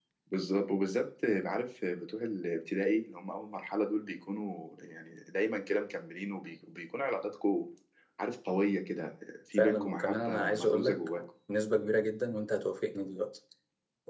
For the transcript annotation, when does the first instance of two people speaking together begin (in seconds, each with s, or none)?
9.5 s